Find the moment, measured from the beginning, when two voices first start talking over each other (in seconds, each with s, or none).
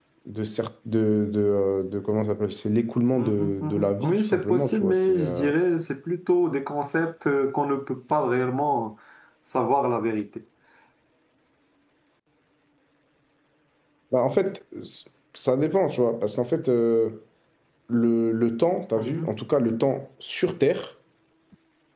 3.1 s